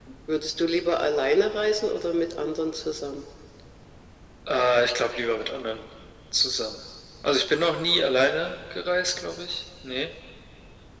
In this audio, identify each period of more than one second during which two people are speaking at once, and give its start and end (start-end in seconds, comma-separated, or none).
none